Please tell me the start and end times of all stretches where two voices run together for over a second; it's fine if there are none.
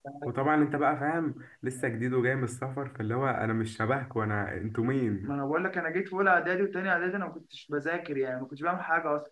none

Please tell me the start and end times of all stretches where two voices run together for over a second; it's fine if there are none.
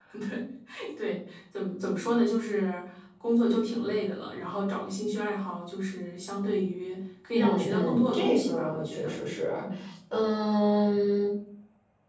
7.3-9.2

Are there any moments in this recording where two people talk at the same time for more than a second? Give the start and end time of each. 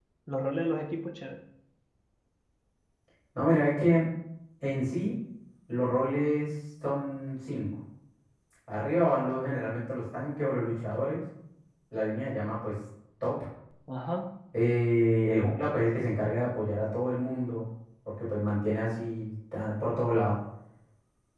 none

